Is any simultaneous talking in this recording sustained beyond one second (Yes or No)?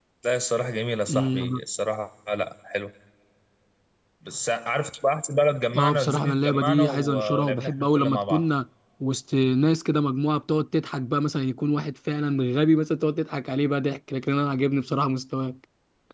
Yes